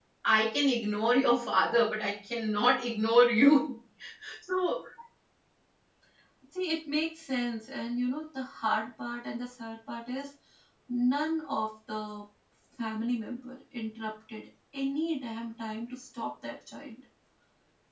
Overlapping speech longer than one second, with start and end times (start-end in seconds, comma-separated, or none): none